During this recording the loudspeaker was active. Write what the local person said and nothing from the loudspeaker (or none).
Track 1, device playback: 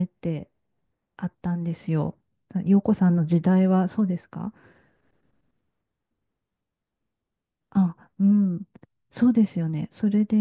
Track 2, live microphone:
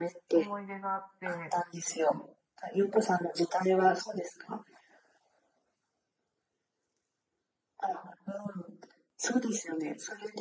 思い出があって、